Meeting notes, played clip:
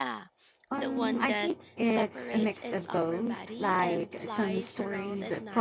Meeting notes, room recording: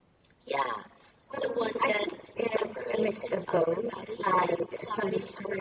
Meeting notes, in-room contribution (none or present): none